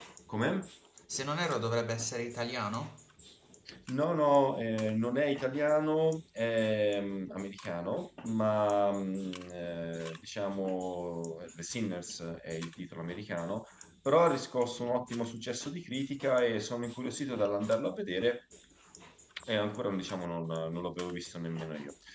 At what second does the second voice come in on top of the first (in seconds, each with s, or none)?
none